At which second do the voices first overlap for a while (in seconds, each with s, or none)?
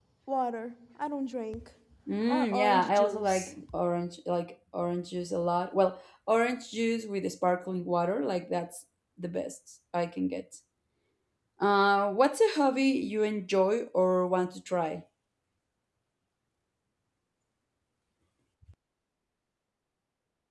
2.3 s